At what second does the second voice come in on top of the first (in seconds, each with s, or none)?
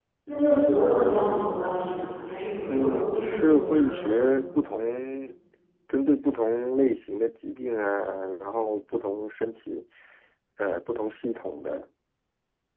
2.7 s